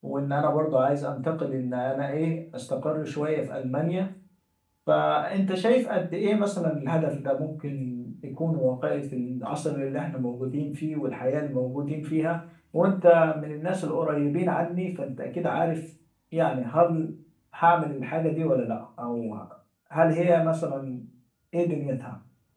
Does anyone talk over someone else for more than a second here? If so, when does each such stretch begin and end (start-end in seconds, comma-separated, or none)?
none